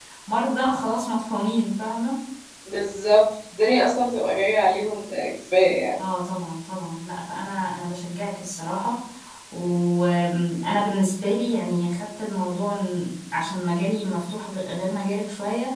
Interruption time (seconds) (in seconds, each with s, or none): none